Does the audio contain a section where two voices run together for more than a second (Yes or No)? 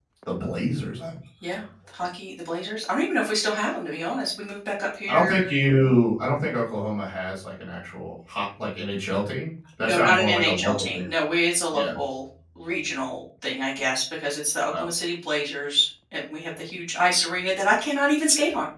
Yes